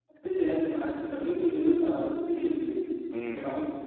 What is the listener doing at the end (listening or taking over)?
taking over